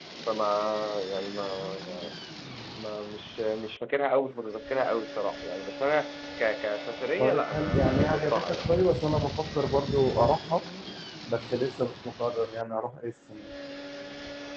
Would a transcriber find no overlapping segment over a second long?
No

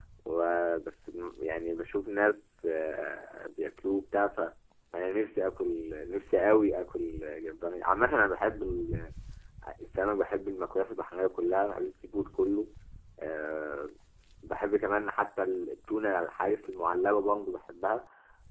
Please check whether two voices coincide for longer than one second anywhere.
No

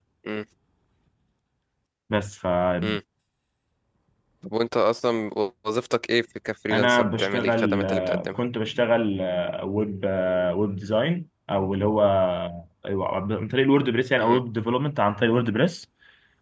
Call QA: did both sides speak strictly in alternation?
No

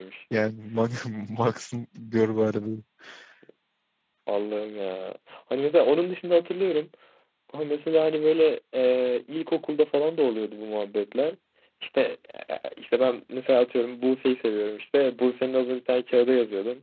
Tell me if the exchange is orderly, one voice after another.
Yes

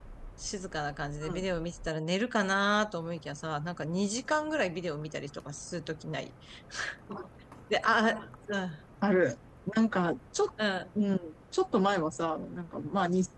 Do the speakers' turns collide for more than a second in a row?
No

